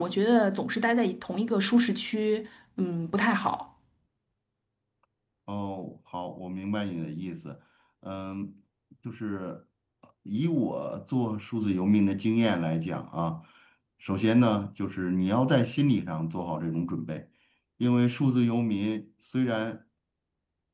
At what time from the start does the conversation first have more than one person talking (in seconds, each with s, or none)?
none